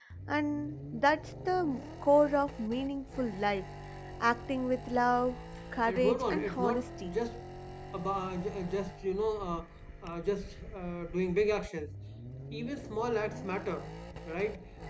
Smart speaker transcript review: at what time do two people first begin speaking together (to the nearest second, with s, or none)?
6 s